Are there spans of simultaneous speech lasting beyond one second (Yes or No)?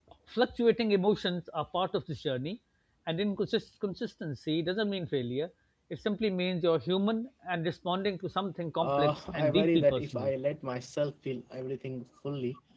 Yes